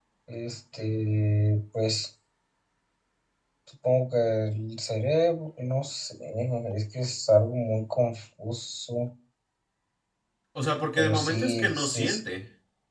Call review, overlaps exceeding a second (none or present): present